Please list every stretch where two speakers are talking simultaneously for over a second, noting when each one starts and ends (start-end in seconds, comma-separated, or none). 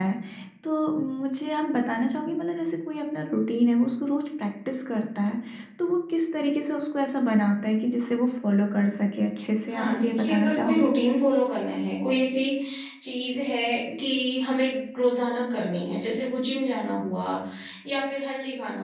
9.7-10.9